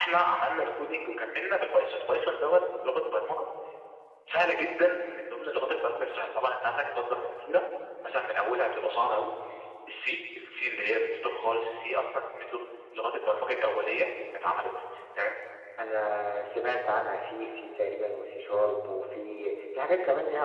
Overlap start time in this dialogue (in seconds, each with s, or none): none